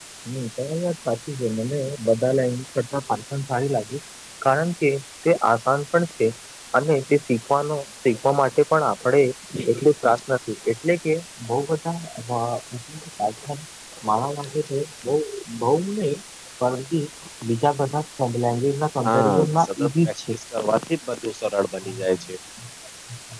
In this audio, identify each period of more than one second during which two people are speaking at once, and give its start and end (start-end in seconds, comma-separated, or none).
19.1-20.3